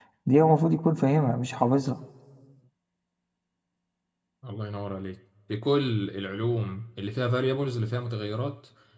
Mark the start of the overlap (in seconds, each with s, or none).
none